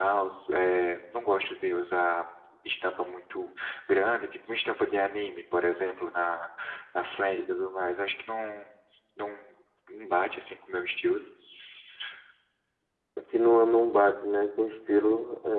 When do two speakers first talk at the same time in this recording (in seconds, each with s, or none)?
none